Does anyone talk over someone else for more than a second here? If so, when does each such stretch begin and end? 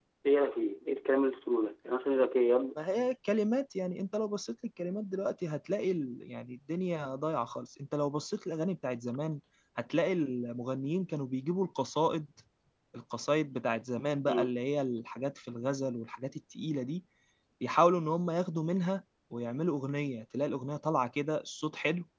none

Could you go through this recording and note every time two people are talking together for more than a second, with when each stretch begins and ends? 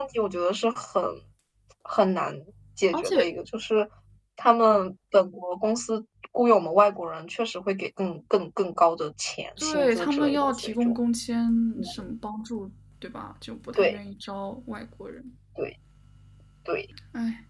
9.6-10.9

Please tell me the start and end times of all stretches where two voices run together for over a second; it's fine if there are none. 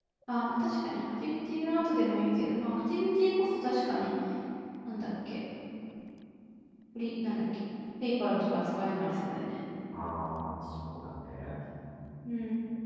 none

